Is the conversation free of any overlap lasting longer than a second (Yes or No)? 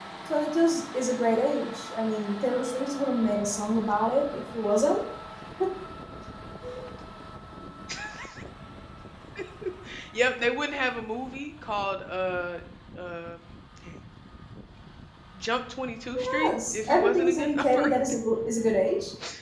No